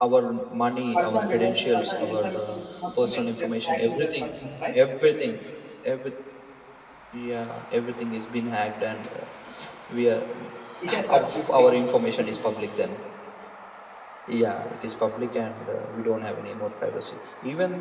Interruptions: present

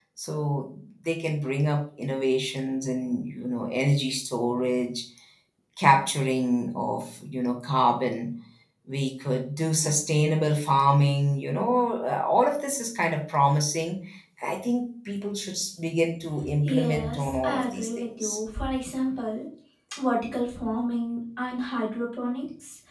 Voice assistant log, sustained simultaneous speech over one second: present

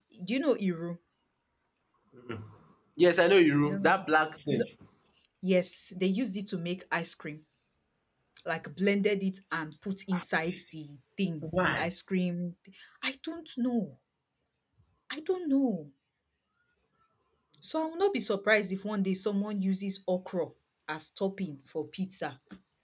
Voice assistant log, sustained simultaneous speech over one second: none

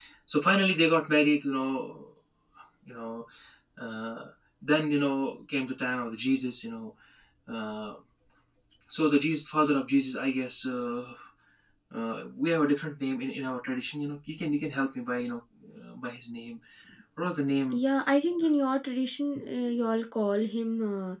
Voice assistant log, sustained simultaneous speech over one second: none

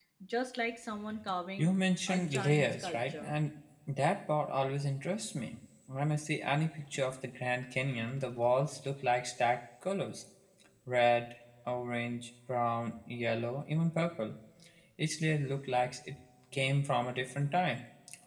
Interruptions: present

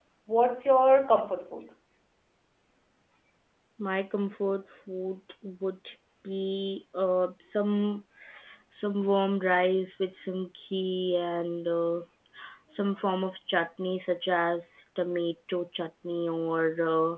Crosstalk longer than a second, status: none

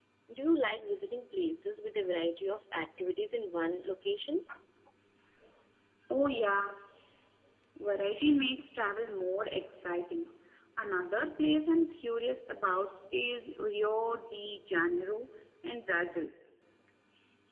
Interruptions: none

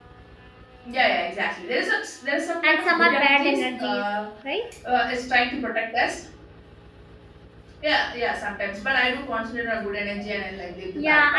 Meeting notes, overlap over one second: present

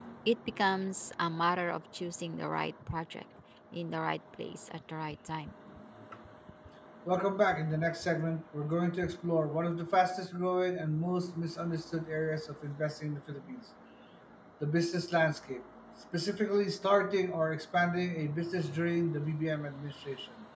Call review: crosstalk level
none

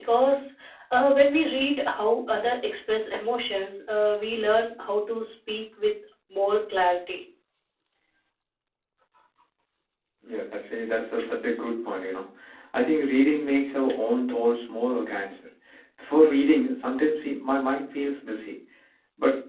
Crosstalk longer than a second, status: none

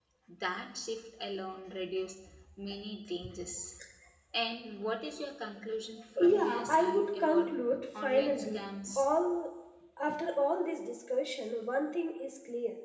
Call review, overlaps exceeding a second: present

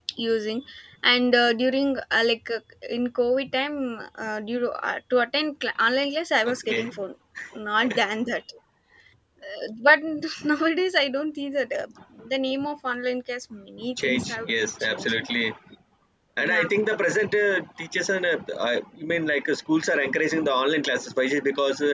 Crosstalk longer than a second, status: present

